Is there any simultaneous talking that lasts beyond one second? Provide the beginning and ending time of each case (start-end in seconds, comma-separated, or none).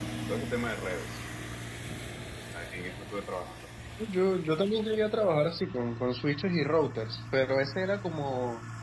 none